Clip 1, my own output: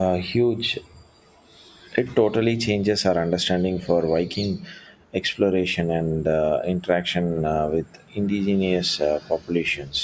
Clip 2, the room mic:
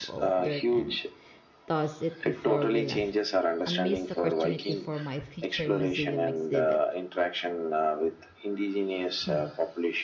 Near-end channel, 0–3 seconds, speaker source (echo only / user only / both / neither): both